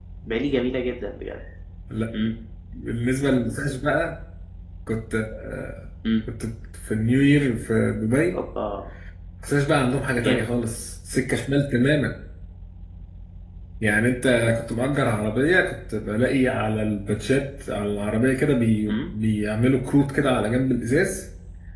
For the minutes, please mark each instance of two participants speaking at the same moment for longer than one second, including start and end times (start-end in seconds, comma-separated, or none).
none